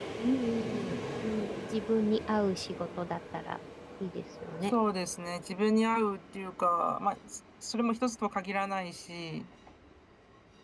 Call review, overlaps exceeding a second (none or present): none